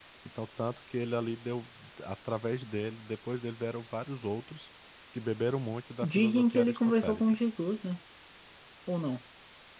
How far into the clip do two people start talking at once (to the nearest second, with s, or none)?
6 s